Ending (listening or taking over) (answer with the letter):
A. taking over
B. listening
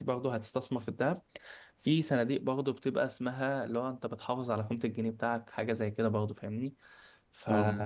B